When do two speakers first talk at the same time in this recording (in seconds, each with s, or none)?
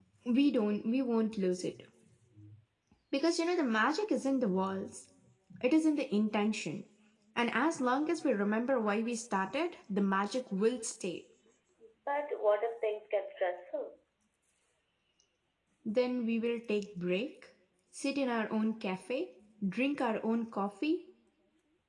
none